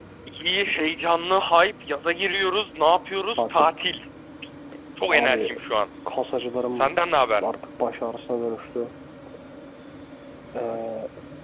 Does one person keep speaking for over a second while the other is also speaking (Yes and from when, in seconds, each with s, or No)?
No